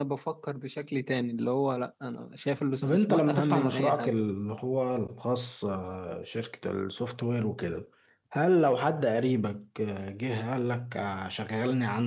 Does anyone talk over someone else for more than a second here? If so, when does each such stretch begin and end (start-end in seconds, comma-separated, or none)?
2.8-4.1